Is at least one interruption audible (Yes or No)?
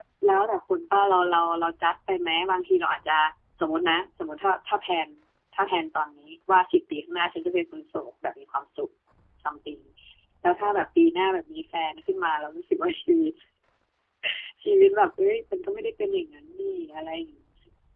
No